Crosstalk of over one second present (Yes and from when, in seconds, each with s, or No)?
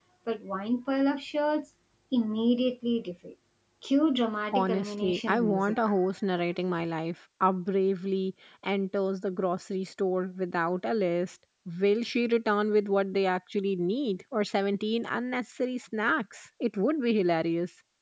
Yes, from 4.5 s